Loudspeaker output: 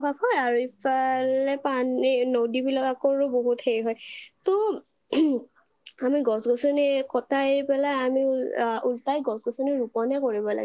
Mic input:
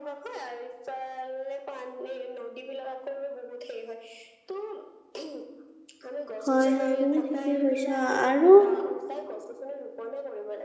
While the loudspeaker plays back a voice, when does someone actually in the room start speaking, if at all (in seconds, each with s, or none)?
6.4 s